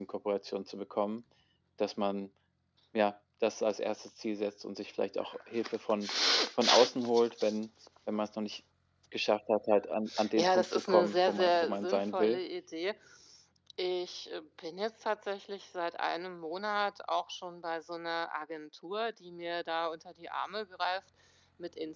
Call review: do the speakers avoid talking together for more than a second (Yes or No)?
No